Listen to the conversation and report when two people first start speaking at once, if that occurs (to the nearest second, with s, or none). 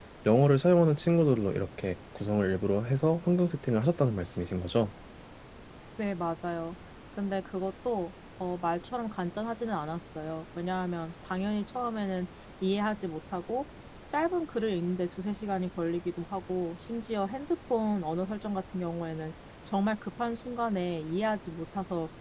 none